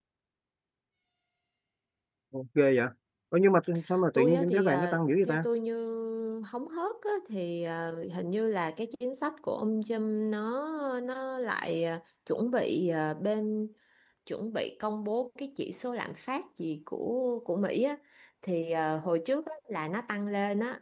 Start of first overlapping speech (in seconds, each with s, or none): 4.1 s